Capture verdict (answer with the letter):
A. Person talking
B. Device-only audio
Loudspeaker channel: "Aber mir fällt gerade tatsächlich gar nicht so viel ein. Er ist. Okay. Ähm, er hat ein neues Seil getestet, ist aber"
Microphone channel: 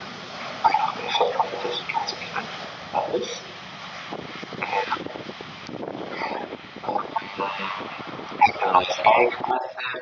B